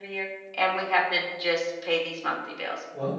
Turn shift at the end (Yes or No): Yes